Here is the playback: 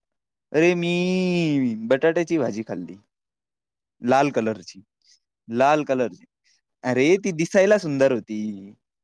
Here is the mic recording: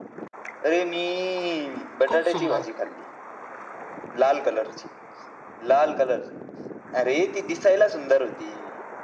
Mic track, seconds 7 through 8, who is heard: echo only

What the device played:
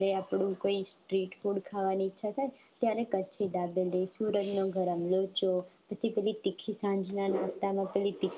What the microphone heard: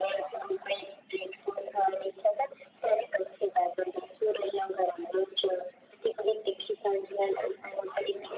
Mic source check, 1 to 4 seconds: echo only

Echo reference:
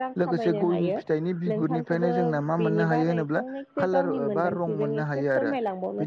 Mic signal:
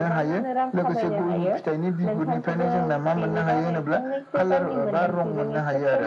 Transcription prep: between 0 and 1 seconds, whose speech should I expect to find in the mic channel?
echo only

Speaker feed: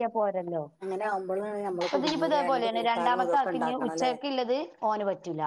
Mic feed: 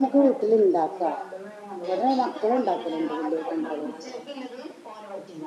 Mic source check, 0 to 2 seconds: both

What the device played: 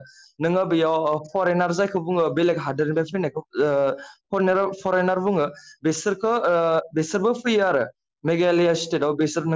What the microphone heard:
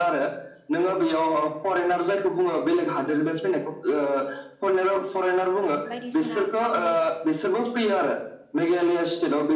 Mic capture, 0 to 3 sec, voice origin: echo only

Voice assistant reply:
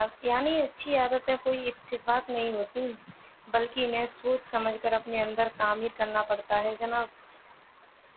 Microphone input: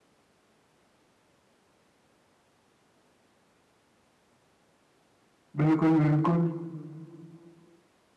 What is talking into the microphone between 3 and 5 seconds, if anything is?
neither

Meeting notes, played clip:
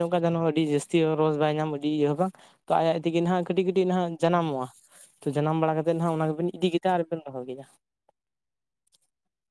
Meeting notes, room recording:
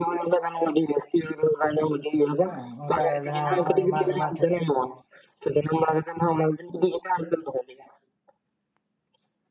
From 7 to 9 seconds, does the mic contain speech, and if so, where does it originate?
echo only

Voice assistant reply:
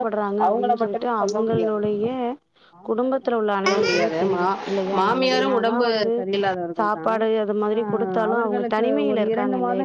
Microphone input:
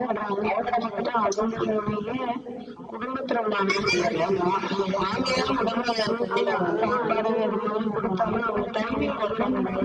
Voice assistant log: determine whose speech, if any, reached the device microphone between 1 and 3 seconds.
echo only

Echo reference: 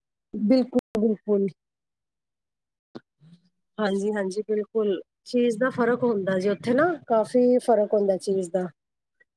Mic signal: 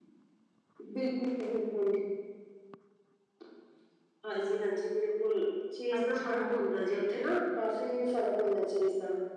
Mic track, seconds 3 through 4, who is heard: neither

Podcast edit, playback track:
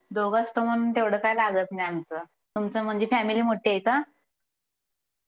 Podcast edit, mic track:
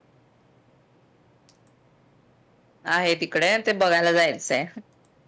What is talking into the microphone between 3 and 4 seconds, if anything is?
user only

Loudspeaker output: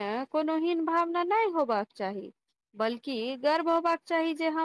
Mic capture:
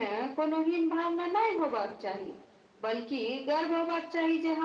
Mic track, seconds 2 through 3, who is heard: echo only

